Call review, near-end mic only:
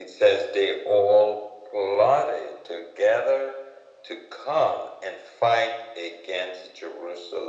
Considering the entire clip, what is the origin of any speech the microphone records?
echo only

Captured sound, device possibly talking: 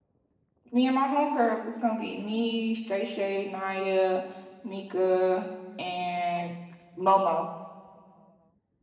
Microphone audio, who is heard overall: user only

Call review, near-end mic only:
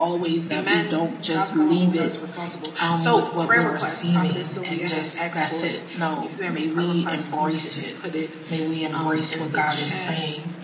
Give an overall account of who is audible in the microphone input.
both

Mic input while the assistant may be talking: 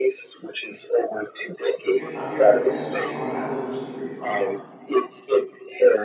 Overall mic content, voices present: both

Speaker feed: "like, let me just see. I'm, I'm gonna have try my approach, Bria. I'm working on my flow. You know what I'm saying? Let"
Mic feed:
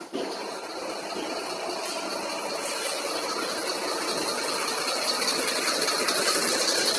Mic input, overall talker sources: neither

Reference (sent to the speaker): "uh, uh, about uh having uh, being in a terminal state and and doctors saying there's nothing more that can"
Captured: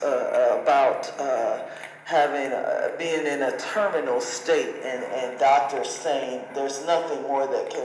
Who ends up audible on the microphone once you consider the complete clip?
echo only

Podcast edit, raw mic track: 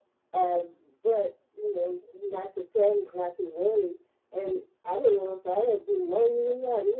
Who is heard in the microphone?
echo only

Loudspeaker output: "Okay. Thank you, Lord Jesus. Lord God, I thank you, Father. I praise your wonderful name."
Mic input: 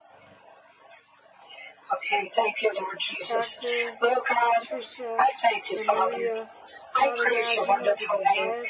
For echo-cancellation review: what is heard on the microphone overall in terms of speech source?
both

